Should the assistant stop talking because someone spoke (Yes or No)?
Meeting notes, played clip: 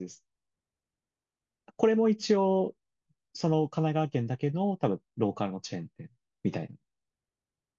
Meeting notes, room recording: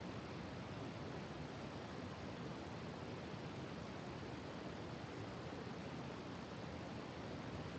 No